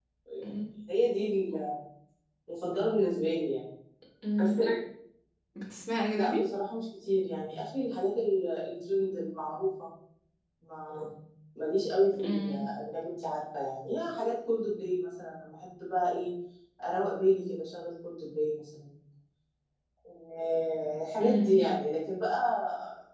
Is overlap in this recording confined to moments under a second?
Yes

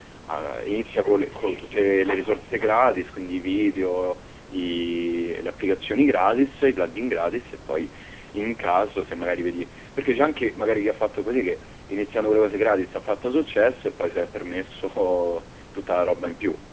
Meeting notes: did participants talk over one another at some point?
Yes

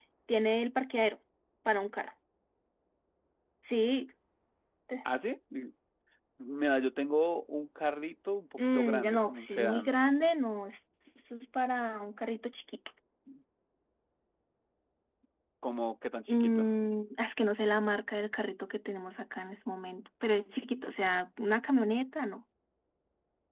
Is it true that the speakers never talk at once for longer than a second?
No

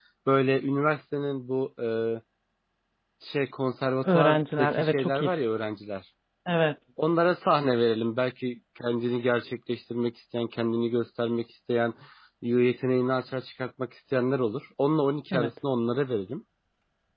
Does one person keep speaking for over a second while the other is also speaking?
Yes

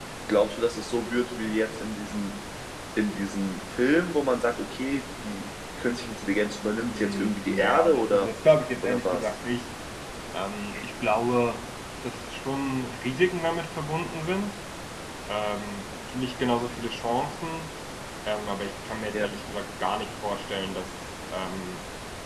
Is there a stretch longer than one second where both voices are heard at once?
Yes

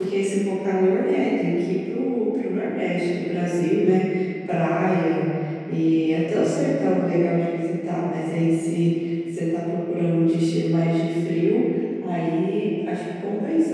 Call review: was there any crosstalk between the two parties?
No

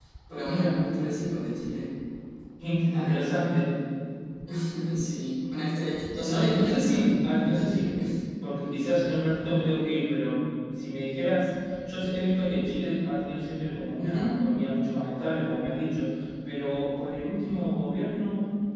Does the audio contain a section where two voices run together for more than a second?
Yes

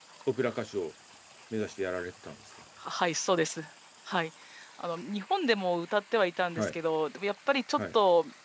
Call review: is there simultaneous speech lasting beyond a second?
No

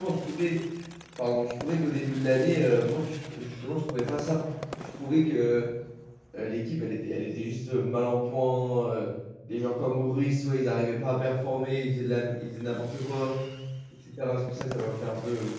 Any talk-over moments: No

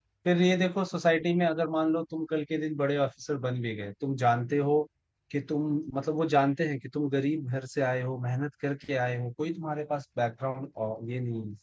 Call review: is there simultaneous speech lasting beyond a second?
No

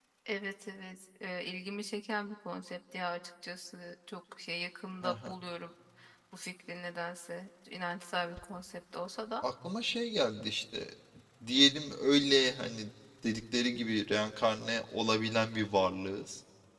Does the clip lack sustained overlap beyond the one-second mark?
Yes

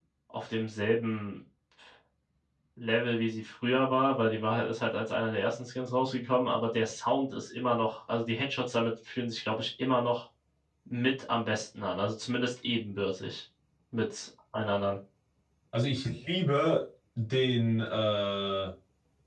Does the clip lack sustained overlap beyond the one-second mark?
Yes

